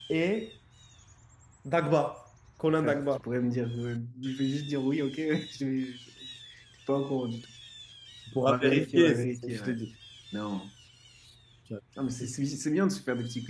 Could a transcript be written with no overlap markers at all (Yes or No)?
No